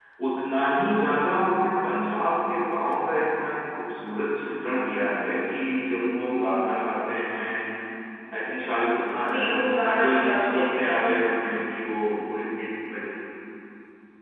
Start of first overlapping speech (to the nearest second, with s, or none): 9 s